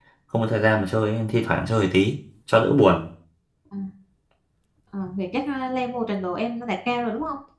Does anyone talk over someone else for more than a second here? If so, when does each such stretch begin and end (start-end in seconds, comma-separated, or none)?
none